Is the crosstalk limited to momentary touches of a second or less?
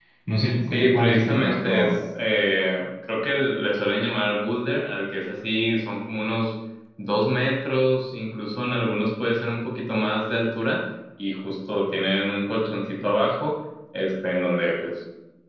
No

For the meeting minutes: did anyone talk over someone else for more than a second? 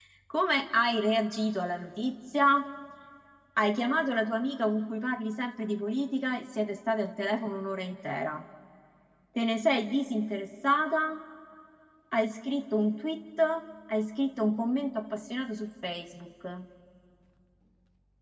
No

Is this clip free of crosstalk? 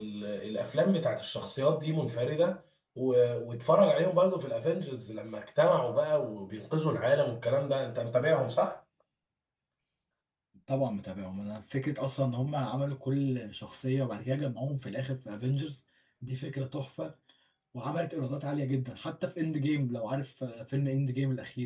Yes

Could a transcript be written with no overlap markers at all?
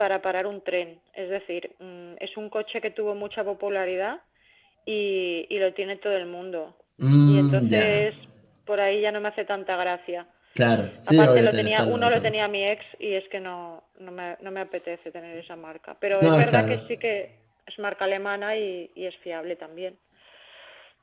No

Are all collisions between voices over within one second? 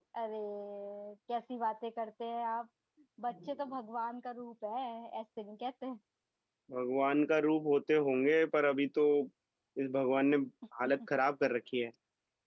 Yes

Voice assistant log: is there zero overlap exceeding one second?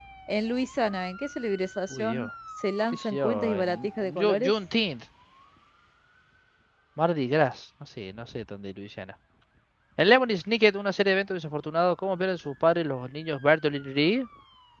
No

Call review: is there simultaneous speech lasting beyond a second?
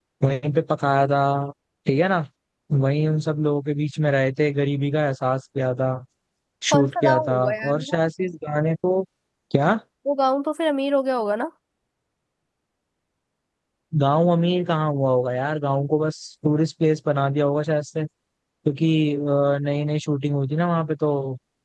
Yes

